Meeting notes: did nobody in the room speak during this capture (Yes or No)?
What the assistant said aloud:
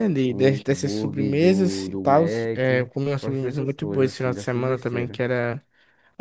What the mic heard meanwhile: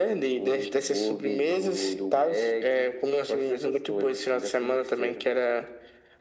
Yes